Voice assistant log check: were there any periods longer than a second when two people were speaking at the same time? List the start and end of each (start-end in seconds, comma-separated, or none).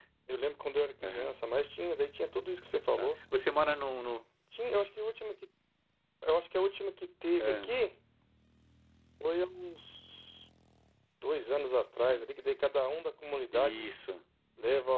none